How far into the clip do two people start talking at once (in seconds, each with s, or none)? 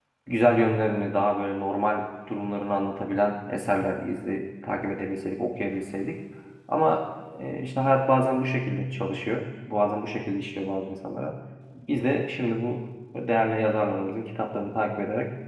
none